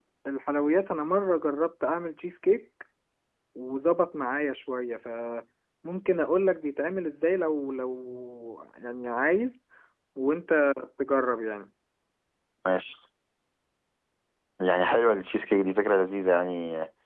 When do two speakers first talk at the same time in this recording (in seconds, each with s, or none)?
none